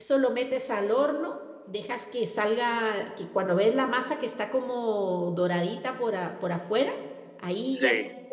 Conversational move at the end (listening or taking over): listening